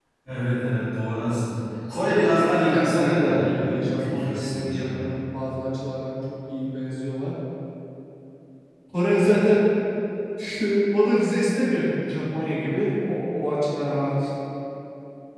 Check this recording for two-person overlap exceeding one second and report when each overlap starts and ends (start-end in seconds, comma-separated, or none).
2.4-5.2